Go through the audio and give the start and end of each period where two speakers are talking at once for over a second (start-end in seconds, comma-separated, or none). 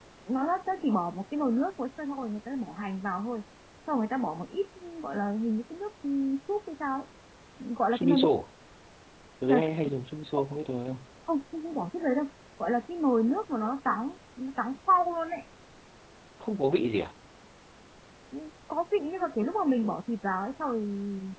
none